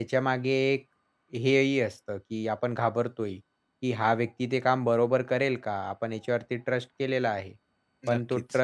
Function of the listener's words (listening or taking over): listening